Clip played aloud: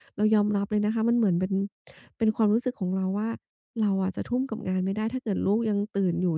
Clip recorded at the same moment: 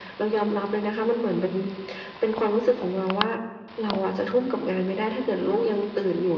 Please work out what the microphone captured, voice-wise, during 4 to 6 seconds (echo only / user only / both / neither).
echo only